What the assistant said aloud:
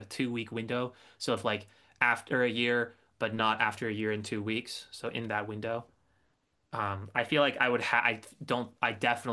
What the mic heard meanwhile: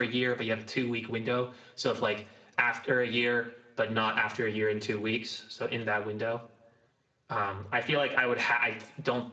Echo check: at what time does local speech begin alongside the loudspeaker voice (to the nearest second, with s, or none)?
none